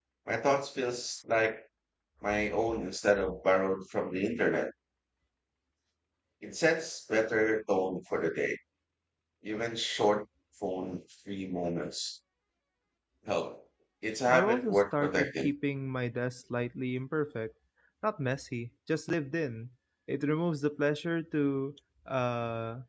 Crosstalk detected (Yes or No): Yes